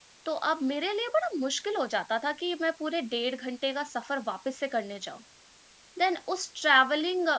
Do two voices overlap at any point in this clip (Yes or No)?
No